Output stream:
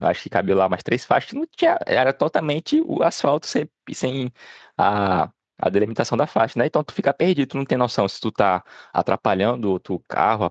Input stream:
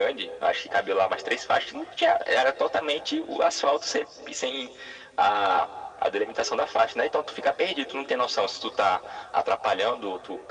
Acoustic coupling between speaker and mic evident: Yes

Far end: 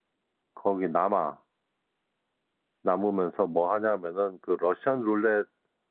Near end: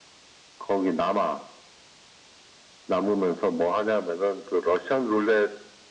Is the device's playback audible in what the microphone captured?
Yes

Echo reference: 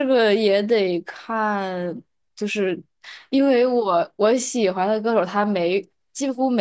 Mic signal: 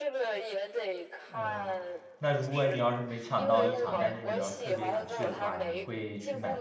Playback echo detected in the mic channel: Yes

